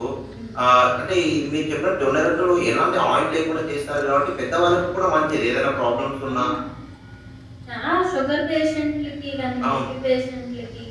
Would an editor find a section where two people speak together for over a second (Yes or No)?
No